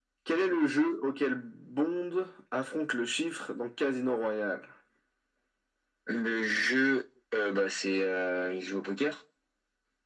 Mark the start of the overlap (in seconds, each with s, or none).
none